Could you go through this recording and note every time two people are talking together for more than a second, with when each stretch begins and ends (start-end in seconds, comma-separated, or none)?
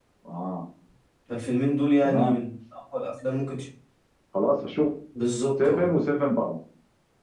none